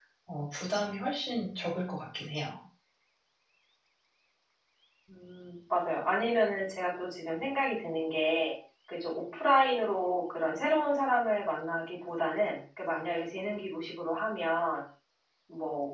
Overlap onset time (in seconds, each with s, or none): none